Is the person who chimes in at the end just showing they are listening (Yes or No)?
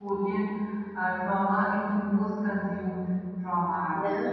No